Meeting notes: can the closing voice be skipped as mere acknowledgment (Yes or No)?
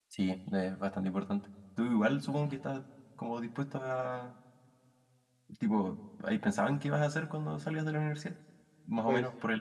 Yes